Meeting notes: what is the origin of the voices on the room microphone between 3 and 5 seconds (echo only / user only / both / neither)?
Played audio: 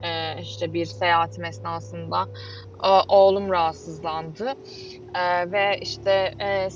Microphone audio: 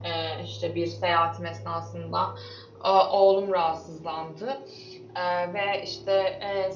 echo only